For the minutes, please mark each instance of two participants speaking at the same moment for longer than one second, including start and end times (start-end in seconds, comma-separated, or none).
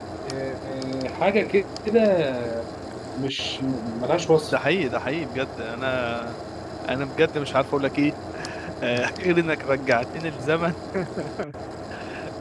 none